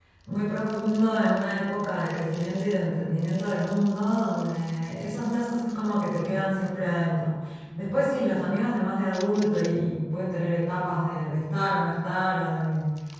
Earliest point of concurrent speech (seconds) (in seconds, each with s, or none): none